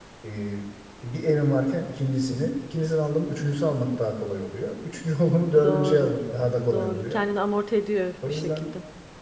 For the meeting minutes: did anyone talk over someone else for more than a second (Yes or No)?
No